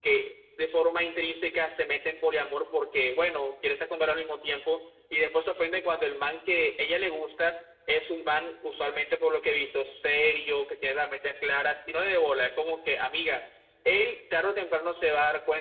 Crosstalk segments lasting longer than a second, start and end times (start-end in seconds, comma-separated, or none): none